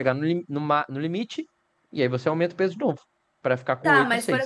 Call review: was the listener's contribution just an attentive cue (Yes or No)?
No